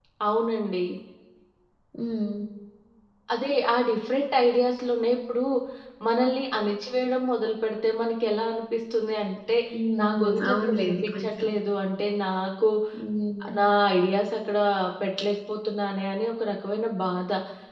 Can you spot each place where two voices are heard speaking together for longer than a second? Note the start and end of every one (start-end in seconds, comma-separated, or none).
10.0-11.5